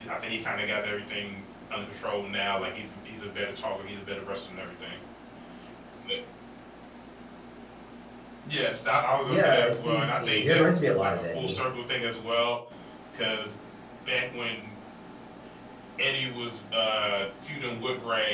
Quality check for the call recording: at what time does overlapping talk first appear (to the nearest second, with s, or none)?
9 s